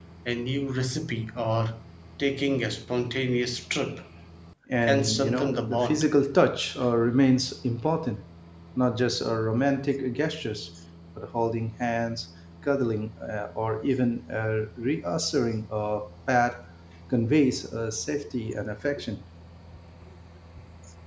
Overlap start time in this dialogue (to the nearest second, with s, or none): 5 s